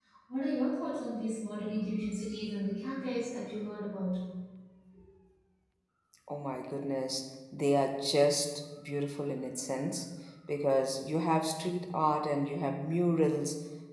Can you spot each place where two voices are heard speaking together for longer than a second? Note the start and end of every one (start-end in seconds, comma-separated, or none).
none